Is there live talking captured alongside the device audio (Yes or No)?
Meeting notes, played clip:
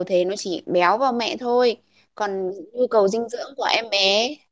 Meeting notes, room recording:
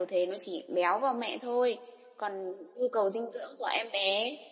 No